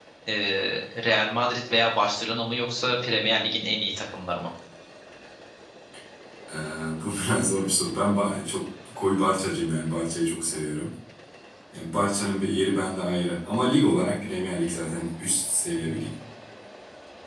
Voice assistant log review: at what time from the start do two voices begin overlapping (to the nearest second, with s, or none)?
none